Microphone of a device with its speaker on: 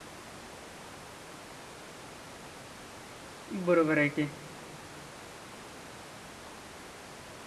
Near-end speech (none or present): present